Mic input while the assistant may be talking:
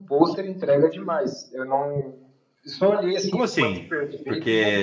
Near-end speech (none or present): present